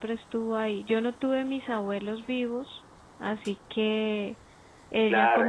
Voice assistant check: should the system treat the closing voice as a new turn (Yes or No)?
Yes